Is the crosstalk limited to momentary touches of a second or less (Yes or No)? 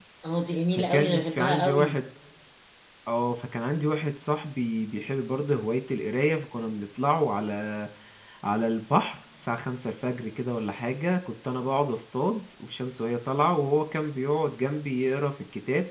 No